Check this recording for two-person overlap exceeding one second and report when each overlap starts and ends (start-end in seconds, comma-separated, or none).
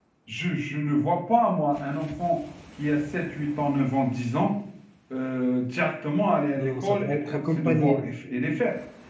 6.6-8.1